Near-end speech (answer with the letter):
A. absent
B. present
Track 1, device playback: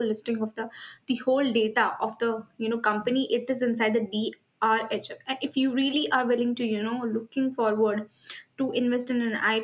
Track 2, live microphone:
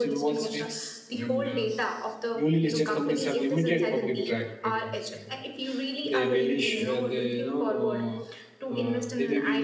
B